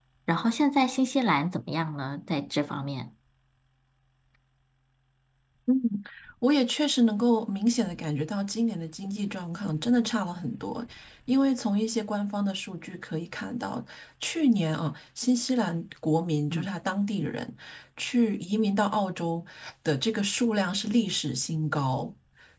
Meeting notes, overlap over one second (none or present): none